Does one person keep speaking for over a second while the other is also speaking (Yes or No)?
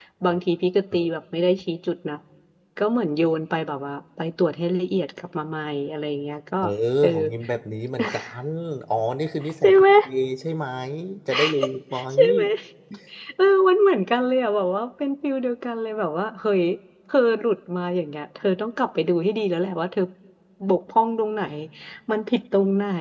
No